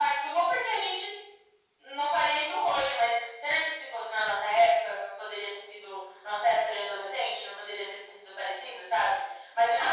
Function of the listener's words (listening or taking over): listening